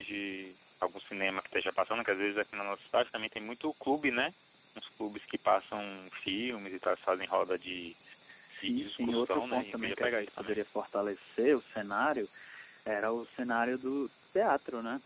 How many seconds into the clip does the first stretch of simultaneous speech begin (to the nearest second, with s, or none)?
9 s